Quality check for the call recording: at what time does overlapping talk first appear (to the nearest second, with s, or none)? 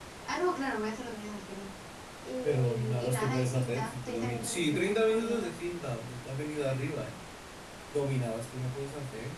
2 s